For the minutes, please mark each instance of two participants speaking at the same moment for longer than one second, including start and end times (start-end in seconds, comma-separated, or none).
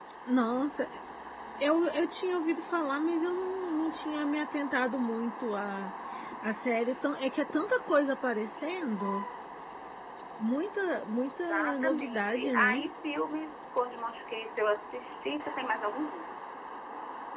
11.4-12.8